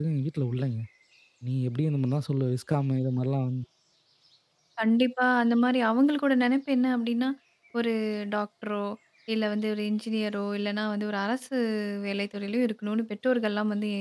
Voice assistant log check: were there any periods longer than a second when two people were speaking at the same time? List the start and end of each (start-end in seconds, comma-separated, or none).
none